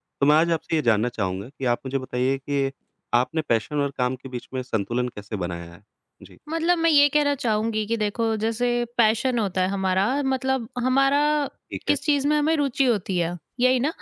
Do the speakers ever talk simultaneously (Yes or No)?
No